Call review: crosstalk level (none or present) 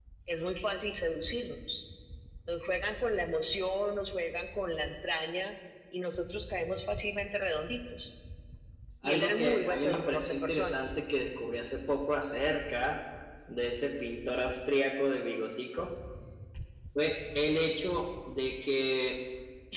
present